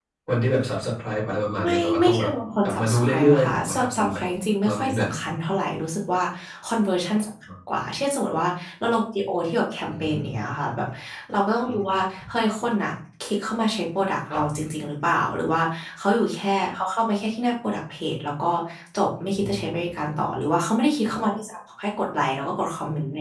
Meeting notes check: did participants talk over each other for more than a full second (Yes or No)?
Yes